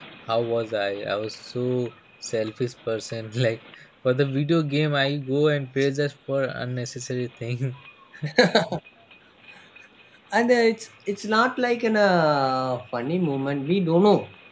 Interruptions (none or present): none